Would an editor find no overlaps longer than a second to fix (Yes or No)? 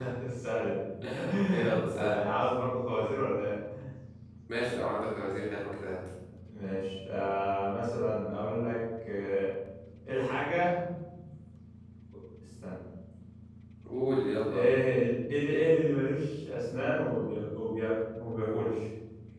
Yes